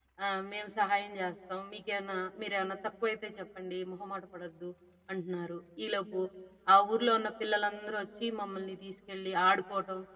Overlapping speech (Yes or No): No